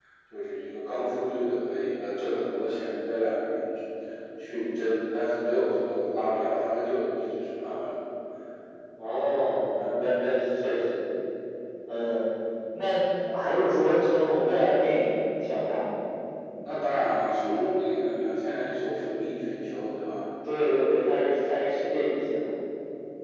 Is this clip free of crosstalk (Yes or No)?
Yes